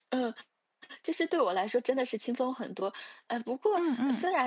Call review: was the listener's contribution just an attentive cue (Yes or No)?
Yes